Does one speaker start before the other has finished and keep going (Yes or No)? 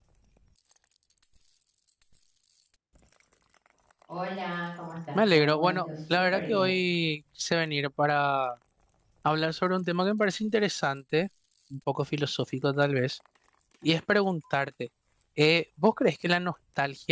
Yes